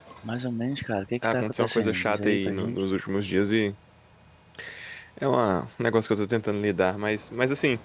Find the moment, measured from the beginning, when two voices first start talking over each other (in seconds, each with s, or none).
1.2 s